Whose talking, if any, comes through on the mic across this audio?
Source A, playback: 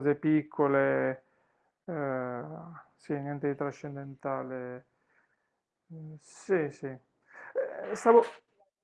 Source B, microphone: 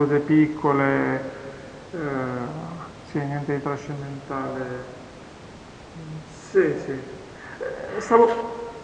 echo only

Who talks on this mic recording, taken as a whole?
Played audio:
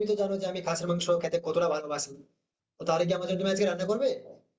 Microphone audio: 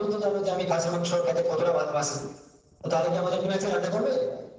echo only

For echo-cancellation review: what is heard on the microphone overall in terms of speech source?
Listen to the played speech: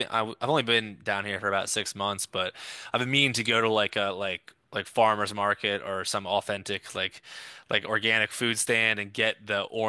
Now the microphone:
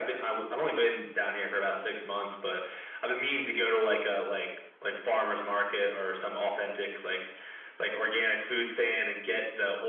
echo only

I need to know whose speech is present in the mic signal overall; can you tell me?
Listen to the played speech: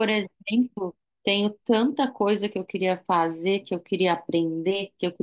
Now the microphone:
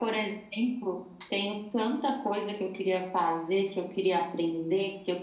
echo only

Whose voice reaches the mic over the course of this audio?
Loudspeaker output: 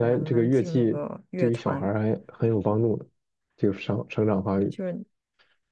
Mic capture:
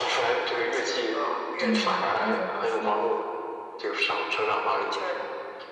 both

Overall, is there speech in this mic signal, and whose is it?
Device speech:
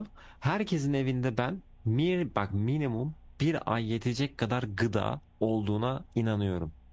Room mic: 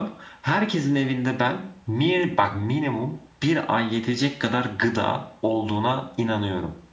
echo only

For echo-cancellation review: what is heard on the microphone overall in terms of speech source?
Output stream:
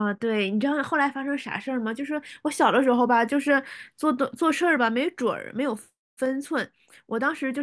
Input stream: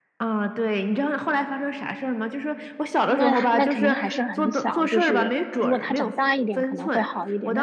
both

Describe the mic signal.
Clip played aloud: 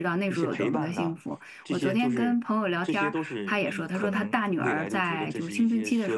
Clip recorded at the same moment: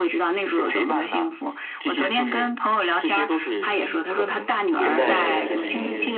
both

